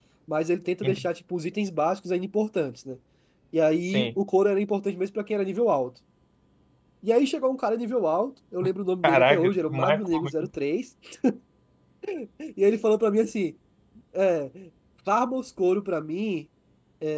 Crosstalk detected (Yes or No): Yes